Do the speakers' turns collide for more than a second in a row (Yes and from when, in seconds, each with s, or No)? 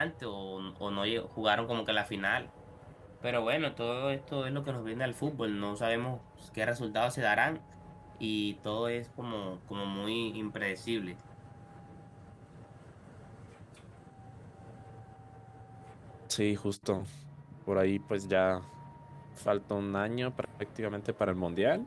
No